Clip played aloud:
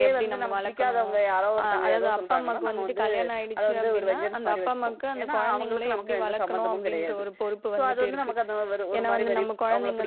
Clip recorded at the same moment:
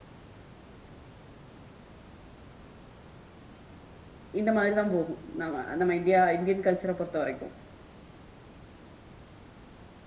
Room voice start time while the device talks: 4.4 s

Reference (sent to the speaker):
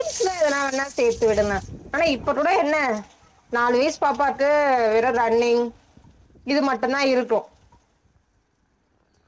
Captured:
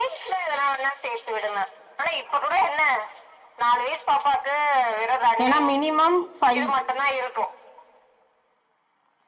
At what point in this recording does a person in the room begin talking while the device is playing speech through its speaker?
5.4 s

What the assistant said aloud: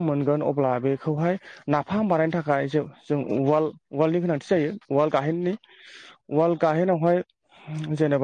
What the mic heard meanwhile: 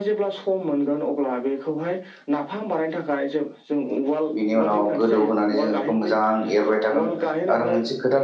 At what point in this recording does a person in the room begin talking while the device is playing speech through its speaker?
4.3 s

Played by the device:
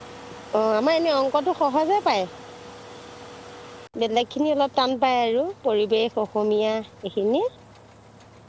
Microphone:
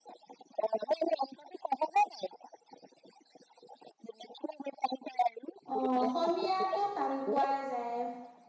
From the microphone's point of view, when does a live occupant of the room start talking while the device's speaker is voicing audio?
5.7 s

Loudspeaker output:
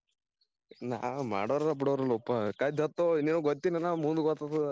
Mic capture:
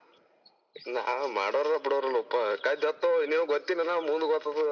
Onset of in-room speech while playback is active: none

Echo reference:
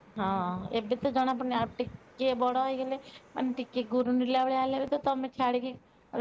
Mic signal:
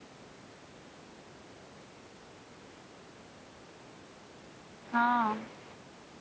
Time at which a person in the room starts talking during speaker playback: 4.9 s

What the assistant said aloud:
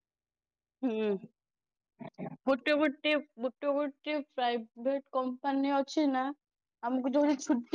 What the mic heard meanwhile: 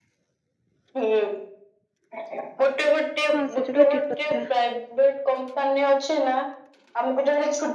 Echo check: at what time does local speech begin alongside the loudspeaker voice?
3.3 s

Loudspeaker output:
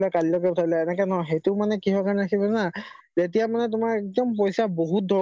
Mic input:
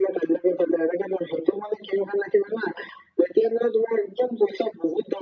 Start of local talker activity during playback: none

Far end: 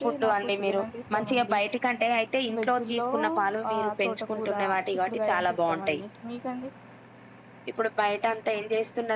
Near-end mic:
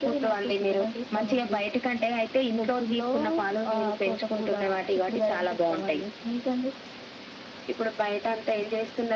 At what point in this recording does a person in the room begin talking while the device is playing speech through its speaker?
none

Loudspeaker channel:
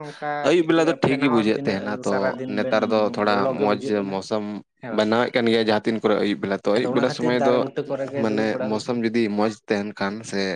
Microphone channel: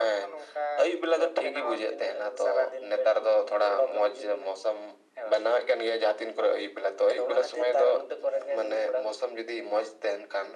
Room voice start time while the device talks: none

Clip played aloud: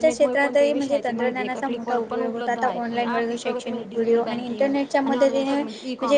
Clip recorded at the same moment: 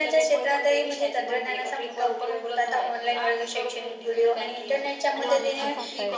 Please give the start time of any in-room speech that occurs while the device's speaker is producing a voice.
5.3 s

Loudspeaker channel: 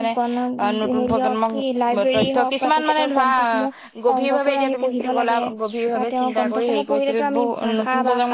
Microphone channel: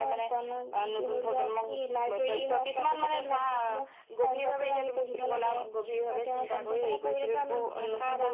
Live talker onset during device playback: none

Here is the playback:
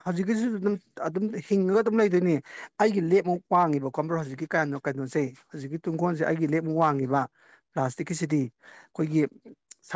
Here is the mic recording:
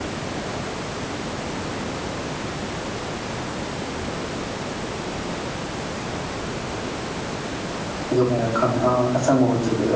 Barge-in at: 8.1 s

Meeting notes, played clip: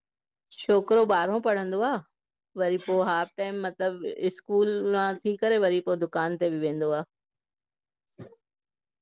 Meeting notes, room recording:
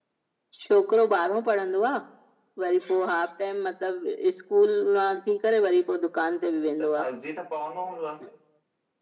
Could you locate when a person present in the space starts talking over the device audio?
6.8 s

